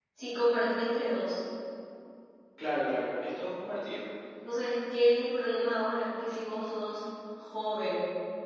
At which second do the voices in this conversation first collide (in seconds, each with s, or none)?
none